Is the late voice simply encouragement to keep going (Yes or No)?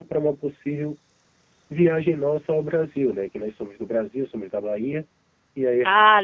Yes